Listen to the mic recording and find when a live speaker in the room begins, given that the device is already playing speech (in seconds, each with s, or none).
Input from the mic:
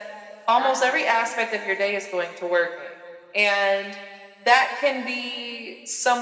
0.6 s